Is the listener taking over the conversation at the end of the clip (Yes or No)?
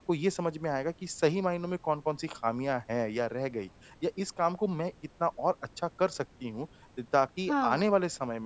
No